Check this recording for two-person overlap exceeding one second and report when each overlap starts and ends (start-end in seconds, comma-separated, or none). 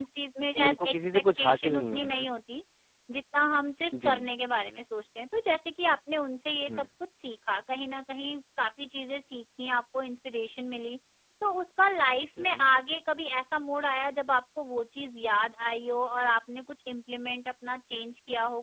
0.6-2.2